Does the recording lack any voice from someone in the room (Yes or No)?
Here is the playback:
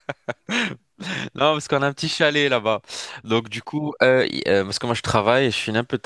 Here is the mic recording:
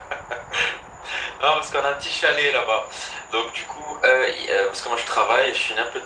Yes